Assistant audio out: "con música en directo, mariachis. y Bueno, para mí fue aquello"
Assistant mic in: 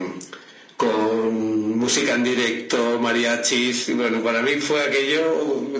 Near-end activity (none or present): none